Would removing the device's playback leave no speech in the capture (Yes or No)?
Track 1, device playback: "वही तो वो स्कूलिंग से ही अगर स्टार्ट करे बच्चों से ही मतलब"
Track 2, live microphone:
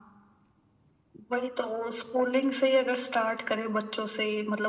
Yes